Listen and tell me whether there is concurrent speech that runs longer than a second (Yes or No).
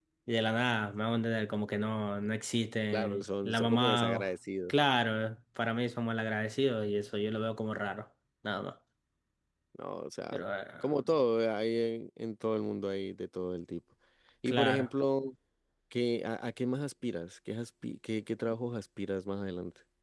Yes